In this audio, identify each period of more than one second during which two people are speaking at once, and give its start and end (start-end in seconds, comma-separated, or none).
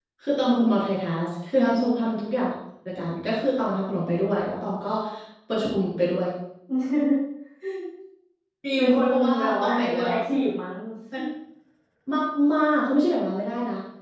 8.8-10.1